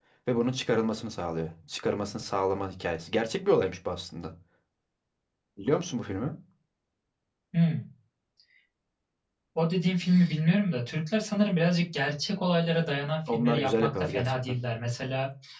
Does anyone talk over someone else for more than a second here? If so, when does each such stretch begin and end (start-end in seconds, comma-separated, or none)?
13.3-14.6